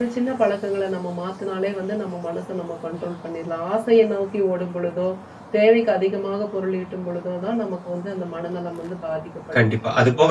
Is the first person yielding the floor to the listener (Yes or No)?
Yes